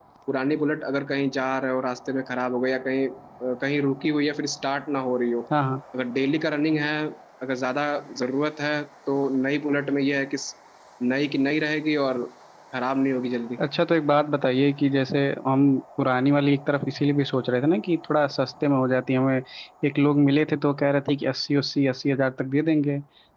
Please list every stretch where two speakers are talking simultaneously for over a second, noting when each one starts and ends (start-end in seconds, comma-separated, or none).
none